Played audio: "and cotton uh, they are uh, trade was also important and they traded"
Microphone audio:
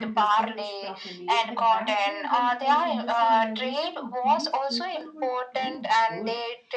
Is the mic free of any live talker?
No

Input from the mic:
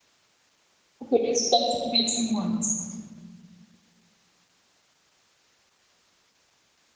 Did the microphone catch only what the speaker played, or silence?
No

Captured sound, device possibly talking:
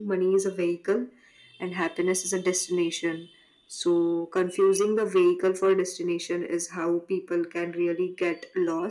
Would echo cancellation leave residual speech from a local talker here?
No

